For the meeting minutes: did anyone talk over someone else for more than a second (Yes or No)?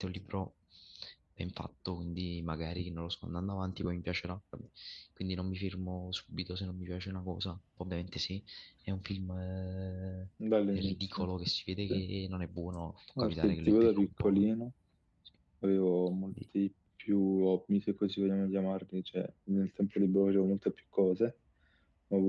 Yes